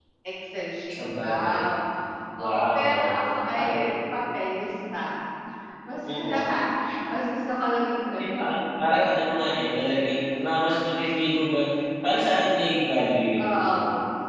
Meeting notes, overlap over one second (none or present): present